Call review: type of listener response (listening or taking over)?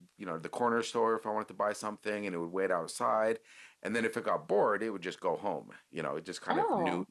listening